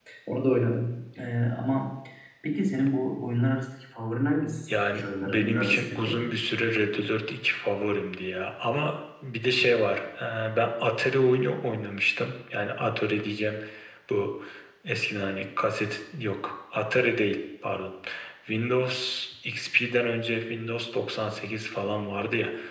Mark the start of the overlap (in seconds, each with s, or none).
4.7 s